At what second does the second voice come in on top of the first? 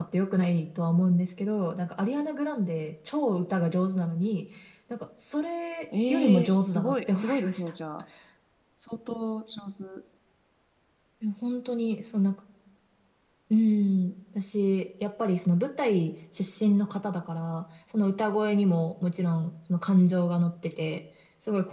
5.9 s

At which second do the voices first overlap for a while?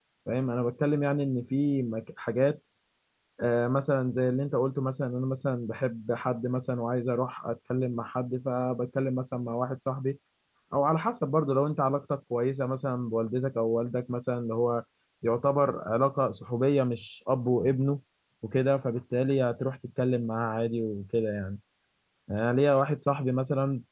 none

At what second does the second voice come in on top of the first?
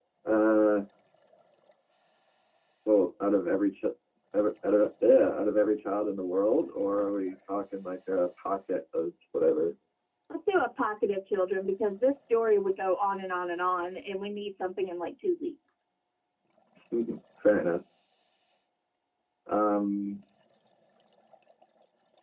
none

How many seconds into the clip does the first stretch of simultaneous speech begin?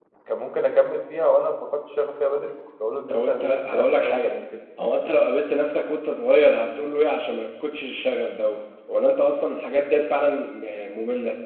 3.1 s

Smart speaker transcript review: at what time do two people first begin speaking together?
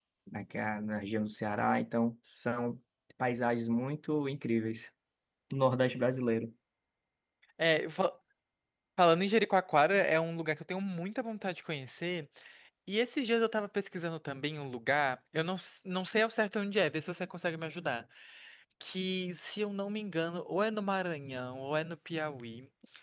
none

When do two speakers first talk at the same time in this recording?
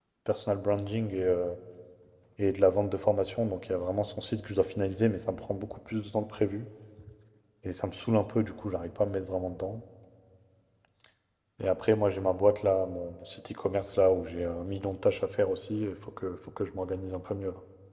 none

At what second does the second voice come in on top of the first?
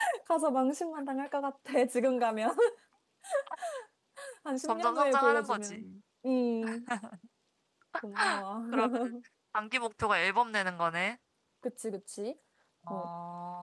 4.6 s

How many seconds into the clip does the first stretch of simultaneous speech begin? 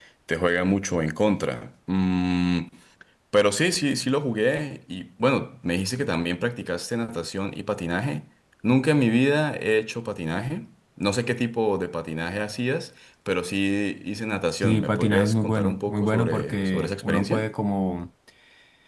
14.6 s

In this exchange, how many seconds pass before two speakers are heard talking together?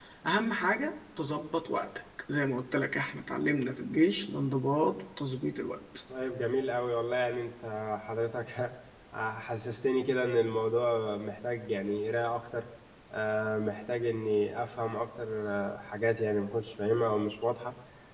none

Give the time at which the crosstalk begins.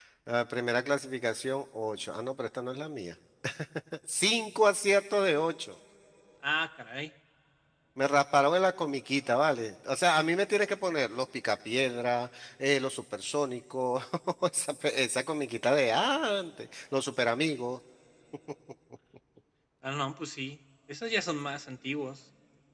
none

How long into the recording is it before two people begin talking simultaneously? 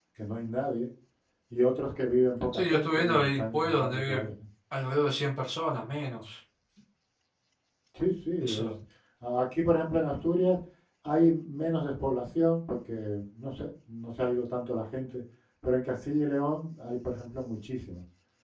2.5 s

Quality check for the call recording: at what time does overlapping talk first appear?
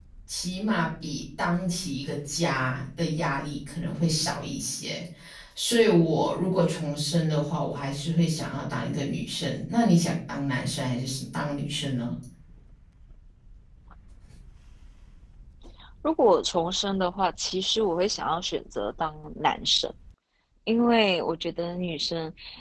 none

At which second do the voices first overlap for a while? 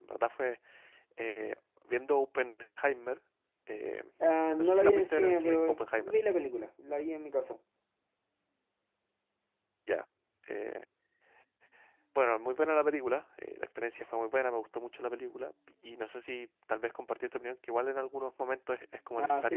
4.6 s

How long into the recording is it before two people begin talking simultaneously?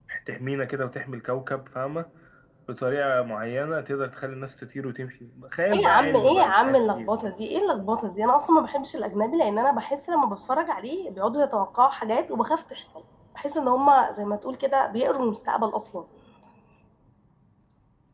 5.7 s

